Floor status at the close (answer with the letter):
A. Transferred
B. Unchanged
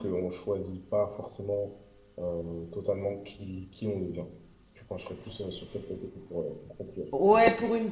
A